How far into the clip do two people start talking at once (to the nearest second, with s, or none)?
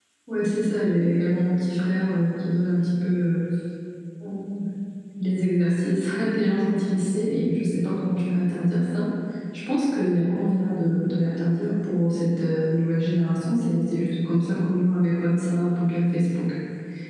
none